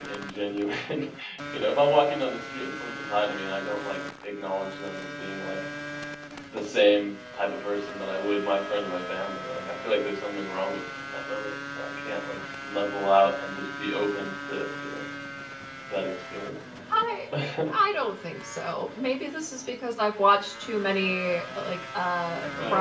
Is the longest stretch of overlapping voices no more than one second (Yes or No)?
Yes